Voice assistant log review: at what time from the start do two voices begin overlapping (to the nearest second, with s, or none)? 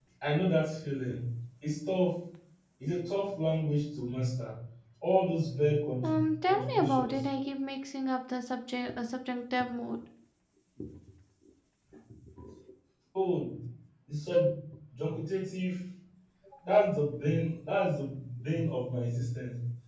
6 s